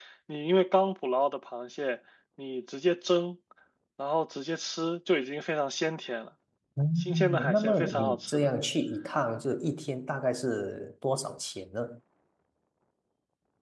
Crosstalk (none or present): present